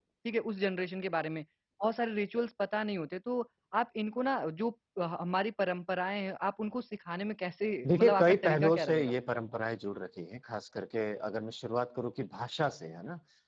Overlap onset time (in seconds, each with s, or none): 7.8 s